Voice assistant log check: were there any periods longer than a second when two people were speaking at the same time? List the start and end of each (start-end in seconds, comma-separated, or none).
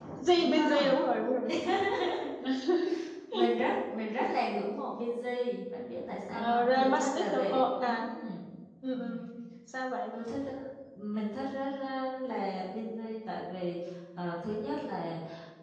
6.3-8.1